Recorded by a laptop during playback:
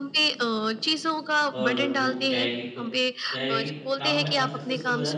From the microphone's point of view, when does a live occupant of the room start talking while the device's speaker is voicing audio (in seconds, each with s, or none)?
1.6 s